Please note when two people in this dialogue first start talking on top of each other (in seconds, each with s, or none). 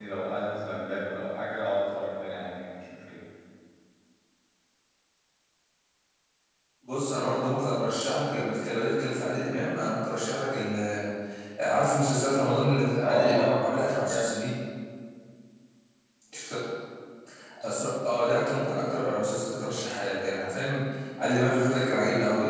12.9 s